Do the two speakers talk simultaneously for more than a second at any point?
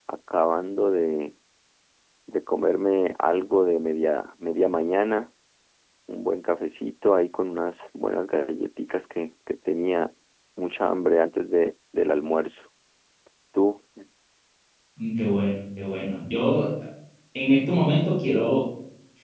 No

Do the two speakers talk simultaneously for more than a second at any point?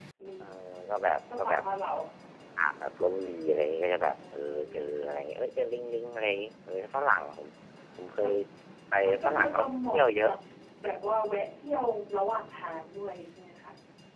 Yes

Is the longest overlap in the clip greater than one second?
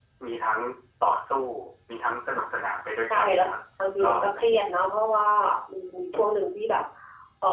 No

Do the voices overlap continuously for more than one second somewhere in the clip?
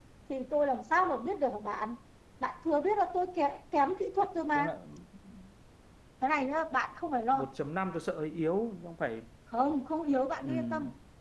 No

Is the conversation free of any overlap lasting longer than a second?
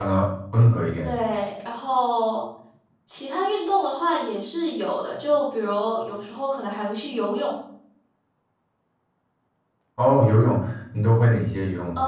Yes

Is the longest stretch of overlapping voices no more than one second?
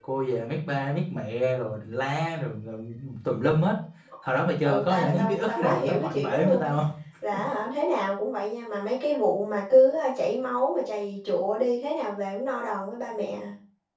No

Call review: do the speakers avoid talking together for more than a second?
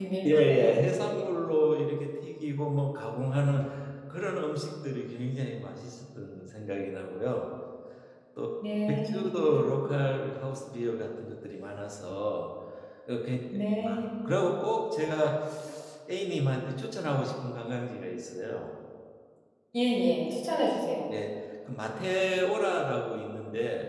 Yes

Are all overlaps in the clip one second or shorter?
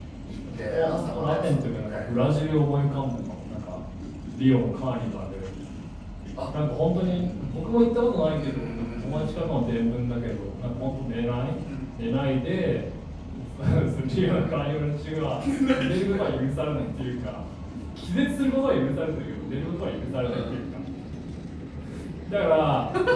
No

